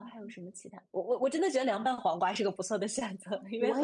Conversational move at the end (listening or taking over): taking over